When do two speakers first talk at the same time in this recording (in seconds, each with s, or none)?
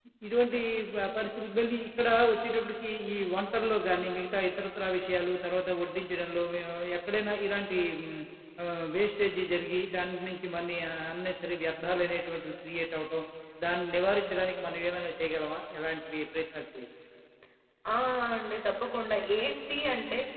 none